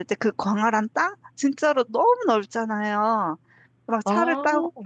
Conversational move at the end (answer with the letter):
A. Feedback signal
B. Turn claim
A